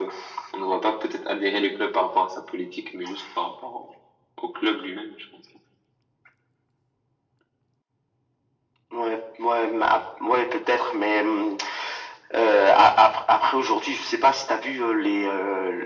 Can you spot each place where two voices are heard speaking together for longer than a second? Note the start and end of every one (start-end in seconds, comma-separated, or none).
none